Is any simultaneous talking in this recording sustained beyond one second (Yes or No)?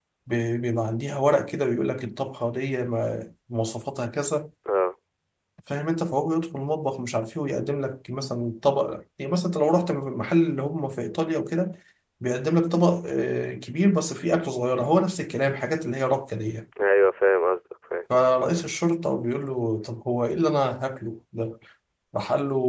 No